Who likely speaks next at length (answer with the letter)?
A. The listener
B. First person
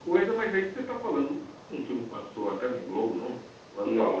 A